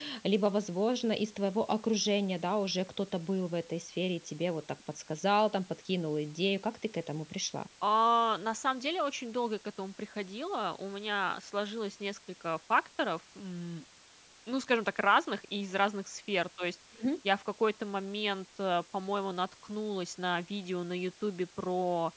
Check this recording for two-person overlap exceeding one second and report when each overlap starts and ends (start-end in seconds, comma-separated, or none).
none